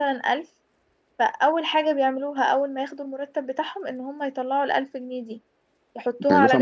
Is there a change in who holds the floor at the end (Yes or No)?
Yes